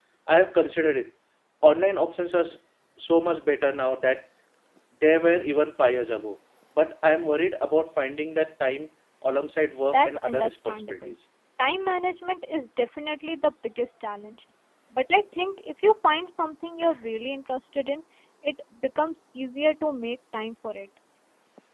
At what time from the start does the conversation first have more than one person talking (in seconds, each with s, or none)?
9.9 s